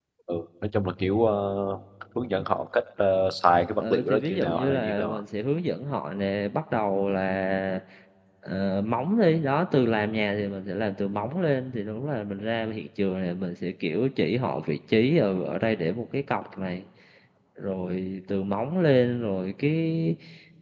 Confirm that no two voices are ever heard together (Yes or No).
No